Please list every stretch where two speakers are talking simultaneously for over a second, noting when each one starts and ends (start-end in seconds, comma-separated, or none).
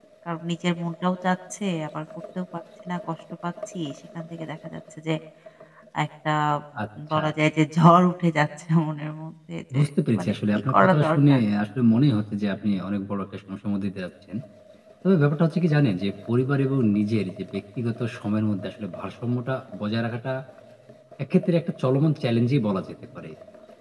10.2-11.4